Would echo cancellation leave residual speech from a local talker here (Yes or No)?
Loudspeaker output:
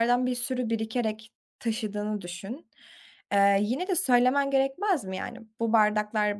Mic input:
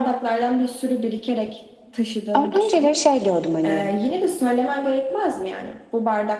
Yes